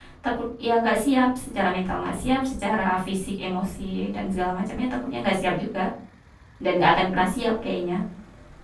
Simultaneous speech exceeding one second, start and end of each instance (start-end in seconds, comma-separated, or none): none